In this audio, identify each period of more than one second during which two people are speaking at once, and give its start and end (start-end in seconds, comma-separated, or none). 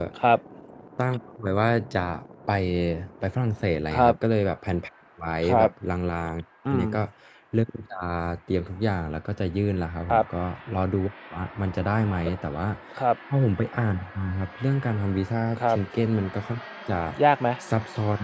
none